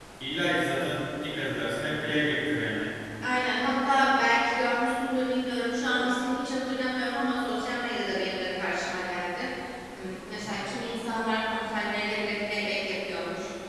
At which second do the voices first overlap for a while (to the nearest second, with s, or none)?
none